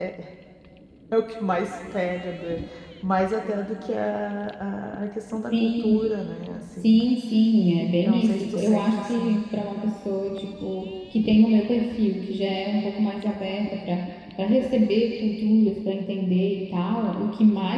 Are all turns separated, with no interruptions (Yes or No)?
No